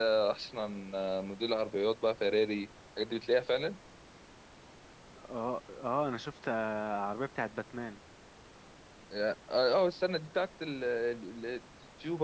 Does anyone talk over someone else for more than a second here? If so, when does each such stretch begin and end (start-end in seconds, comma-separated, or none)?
none